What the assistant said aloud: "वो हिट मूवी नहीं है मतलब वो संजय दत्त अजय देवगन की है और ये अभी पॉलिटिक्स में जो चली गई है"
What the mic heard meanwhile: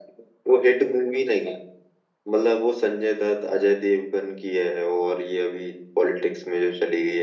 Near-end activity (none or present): none